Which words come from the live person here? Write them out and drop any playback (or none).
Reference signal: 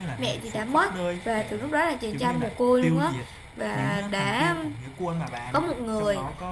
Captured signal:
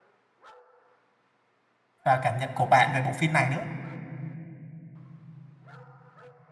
và cảm nhận của bạn về bộ phim này nữa.